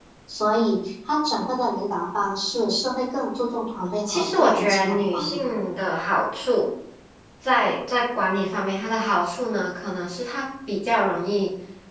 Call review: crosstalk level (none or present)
present